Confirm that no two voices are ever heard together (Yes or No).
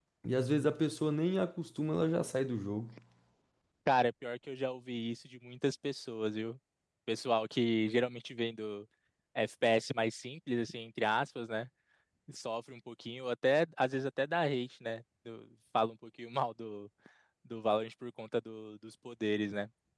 Yes